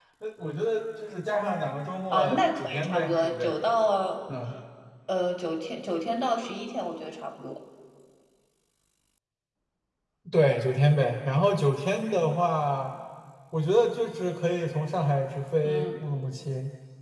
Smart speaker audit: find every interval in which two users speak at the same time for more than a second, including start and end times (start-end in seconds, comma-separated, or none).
2.1-3.5